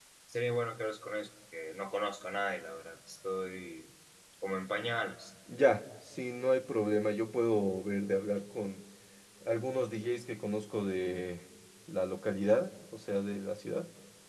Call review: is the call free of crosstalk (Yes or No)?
Yes